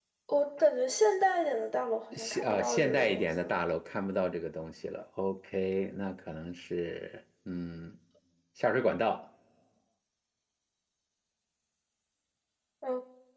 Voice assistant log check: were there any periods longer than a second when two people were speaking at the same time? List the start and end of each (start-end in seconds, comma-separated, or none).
2.1-3.6